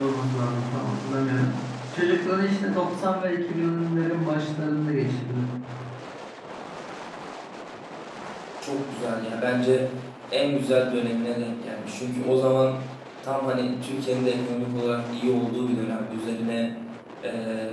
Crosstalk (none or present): none